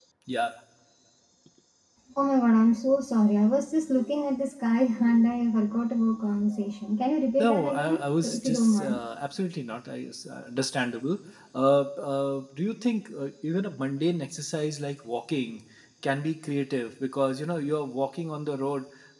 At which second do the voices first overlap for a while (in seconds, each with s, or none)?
7.4 s